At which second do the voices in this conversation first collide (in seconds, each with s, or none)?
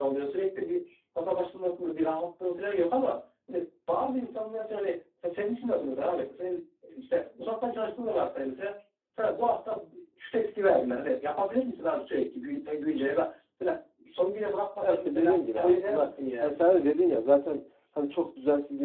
14.8 s